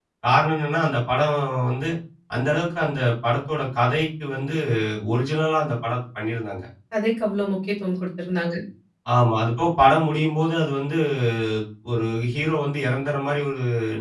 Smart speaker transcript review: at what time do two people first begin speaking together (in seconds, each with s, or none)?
none